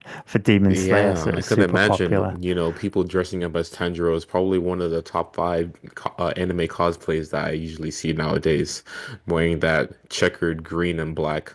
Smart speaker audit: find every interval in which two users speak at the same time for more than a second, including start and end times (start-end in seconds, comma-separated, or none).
0.7-2.3